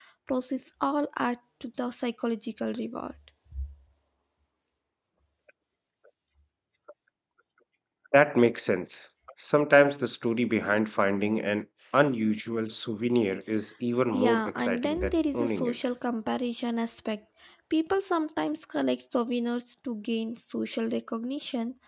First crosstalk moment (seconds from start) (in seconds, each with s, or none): 14.1 s